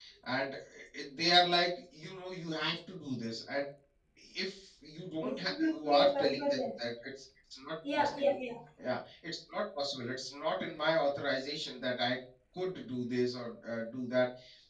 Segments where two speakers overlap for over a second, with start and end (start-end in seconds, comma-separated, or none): 5.2-6.7